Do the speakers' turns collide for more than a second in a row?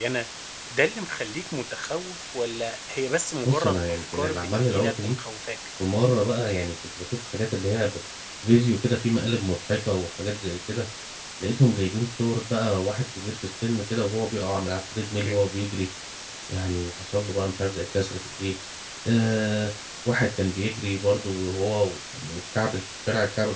Yes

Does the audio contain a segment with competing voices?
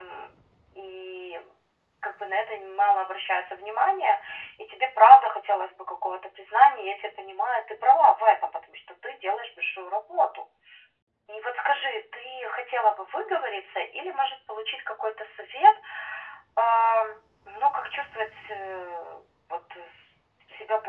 No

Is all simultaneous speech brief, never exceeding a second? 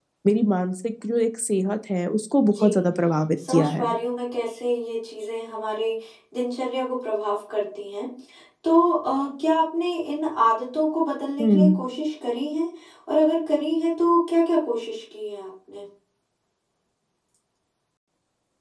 Yes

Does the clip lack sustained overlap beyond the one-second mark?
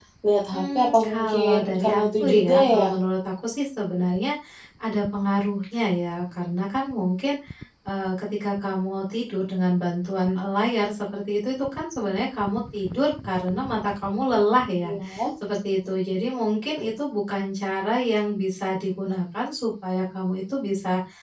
No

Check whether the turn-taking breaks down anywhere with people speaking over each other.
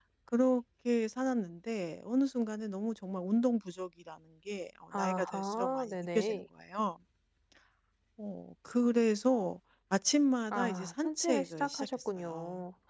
Yes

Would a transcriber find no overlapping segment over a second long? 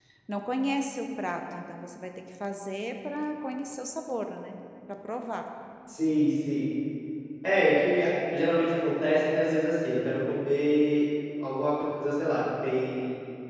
Yes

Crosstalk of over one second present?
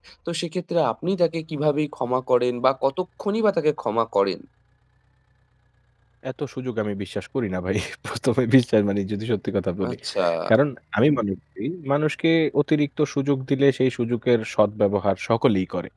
No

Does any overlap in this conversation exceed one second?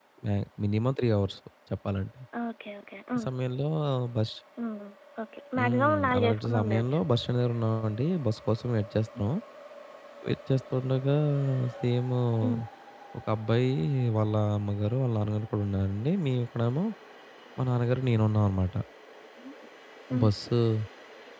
Yes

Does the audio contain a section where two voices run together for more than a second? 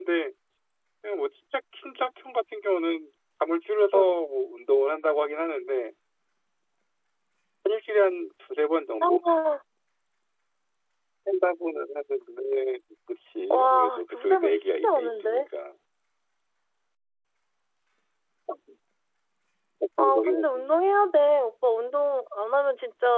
Yes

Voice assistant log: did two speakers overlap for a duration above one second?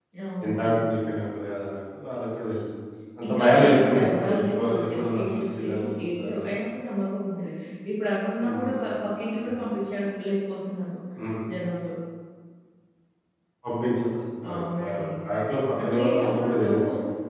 Yes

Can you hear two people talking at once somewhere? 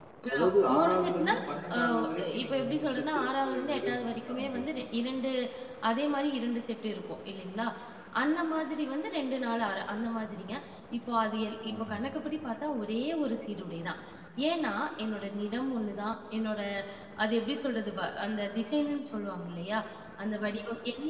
Yes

